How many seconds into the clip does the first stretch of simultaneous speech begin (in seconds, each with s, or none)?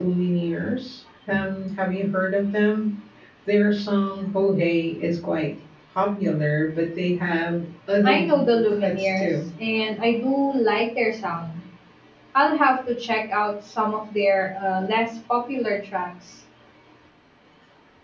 8.0 s